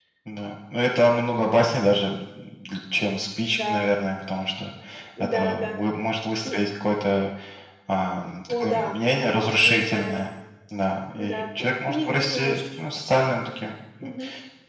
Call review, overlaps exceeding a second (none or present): present